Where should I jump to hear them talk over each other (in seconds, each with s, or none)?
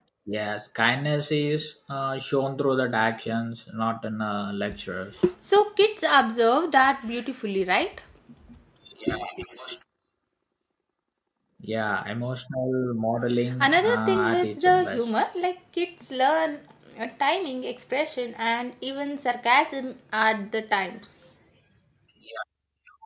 13.6 s